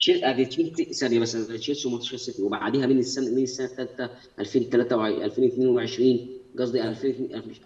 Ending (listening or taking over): listening